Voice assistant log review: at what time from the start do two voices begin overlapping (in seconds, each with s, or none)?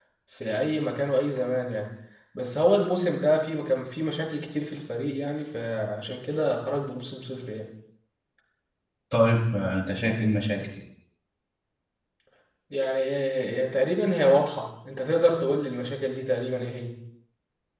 none